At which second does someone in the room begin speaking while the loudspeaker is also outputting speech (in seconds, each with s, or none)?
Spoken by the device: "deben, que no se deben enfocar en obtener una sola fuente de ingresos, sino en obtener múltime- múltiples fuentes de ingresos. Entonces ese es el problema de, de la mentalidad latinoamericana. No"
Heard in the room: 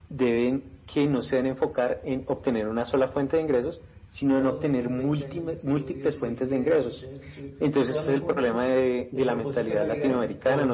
4.3 s